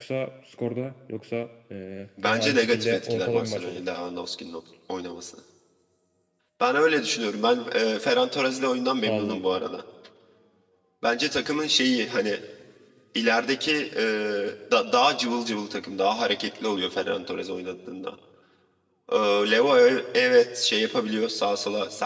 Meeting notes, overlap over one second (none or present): present